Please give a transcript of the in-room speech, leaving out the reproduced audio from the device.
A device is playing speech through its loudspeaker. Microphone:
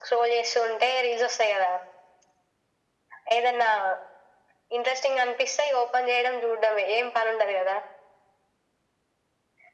none

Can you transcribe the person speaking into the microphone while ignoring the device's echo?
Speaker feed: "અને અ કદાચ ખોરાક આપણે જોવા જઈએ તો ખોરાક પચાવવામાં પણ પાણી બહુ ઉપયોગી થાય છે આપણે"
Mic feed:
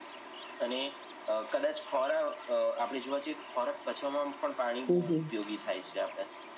હમ, હમ.

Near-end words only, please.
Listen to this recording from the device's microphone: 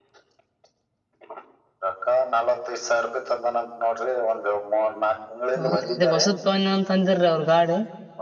ಹೌದ ಅ ಹೊಸತ್ನ್ ಅಂತ ಅಂದರೀ ಅವ್ರ ಗಾಡಿ.

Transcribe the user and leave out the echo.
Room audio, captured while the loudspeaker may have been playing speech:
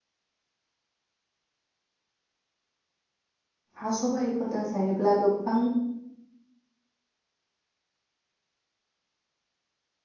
हा सबाइफोरजों जायोब्ला गोबां

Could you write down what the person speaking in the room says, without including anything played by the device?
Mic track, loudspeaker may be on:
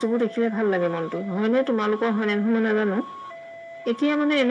none

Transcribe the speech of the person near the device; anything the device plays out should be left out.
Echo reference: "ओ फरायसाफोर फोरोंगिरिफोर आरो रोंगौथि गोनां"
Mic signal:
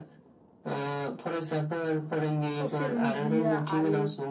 ससियेल मिडिया आरो

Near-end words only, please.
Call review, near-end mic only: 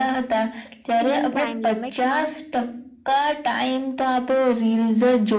સ્ક્રીન ટાઈમ લિમિટમાં

